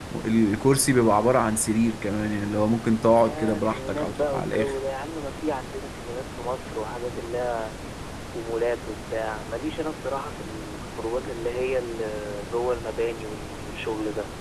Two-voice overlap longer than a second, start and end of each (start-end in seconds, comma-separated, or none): 3.2-4.7